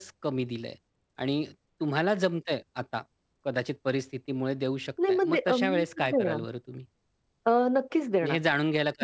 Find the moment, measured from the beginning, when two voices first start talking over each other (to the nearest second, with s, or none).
5 s